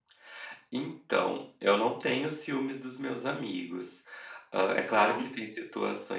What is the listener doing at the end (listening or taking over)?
listening